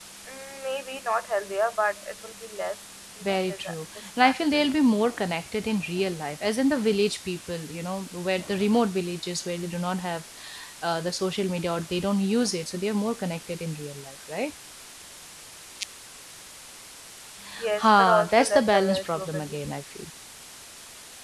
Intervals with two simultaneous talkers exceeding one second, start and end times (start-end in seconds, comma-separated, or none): 3.2-4.7, 17.8-19.6